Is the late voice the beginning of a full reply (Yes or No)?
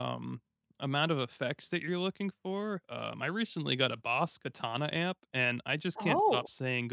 No